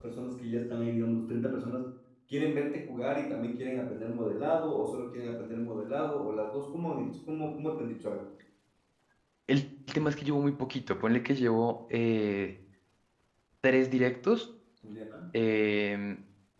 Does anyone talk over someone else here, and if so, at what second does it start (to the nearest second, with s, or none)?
none